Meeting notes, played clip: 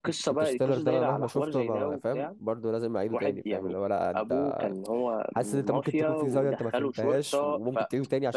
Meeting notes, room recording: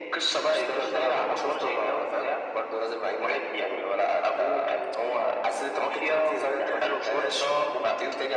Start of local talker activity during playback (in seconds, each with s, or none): none